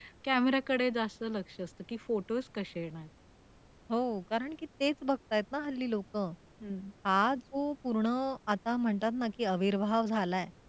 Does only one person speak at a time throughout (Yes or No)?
Yes